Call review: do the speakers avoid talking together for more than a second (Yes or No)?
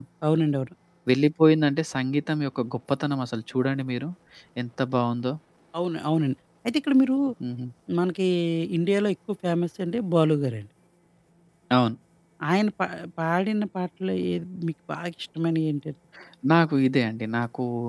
Yes